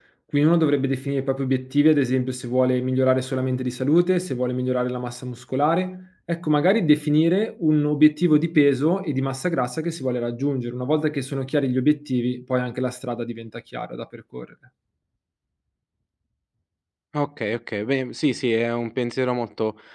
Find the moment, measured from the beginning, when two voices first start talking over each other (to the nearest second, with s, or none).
none